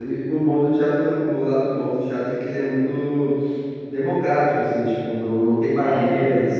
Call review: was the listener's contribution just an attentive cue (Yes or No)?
Yes